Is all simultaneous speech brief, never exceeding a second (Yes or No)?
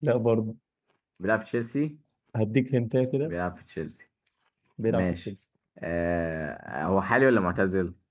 Yes